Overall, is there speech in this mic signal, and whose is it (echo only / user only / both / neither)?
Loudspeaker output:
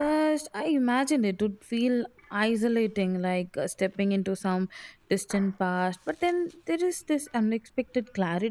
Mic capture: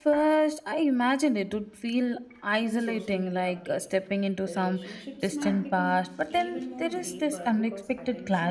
both